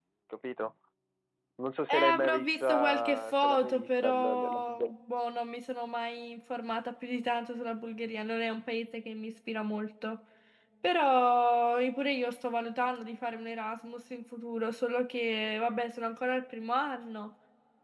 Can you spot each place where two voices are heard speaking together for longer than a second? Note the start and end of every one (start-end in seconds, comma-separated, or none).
1.9-4.9